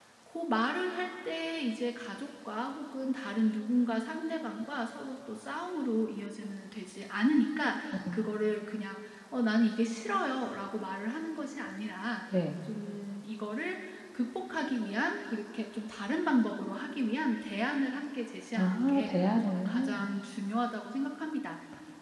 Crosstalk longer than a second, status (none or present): present